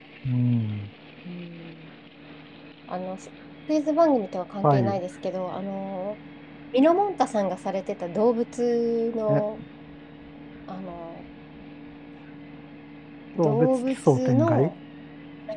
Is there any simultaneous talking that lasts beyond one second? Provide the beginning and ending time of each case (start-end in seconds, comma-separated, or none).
13.4-14.7